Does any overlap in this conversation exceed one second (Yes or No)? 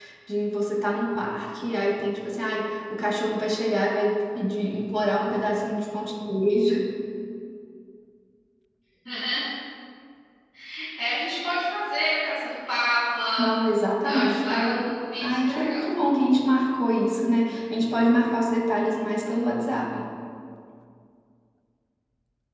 Yes